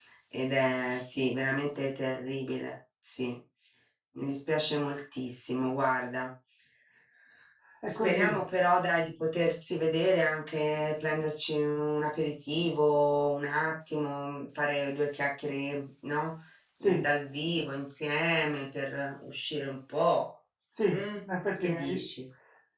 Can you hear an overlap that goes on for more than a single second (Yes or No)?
No